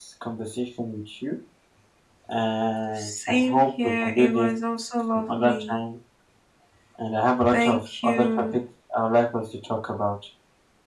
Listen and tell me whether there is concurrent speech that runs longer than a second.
Yes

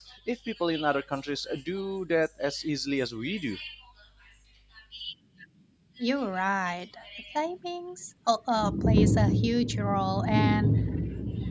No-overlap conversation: Yes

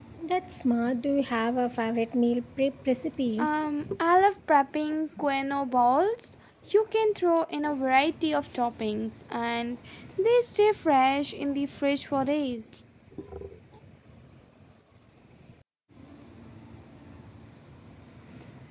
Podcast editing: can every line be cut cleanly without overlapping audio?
Yes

